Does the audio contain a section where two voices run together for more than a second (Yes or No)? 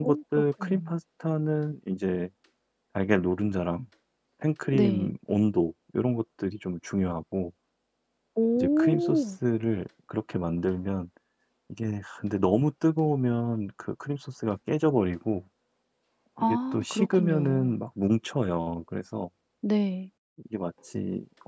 Yes